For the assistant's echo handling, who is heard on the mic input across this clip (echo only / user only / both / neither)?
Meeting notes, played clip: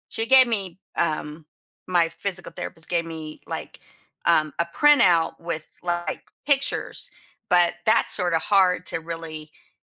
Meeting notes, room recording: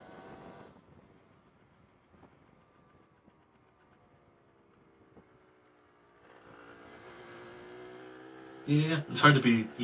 user only